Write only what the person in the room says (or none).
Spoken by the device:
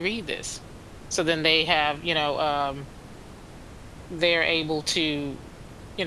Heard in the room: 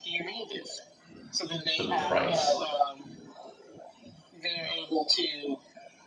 the price